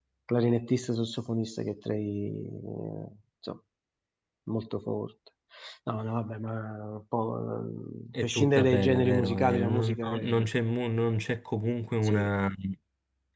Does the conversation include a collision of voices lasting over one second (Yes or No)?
Yes